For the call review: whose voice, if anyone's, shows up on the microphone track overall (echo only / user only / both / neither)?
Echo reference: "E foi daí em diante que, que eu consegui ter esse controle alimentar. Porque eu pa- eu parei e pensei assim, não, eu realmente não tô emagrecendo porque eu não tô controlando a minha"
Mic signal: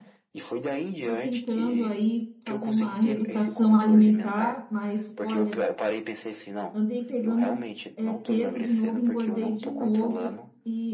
both